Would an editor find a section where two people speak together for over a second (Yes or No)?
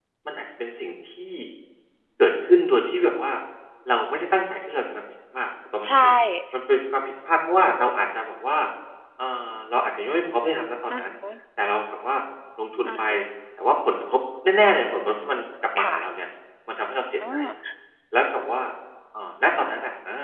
No